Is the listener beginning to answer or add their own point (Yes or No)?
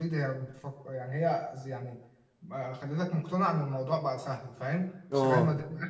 No